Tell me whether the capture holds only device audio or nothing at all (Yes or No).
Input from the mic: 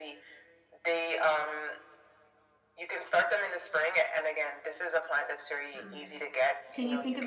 No